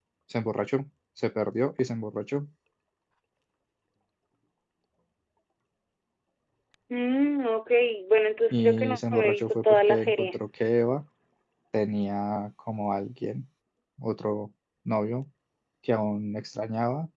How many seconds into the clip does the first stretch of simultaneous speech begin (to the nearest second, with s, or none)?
9 s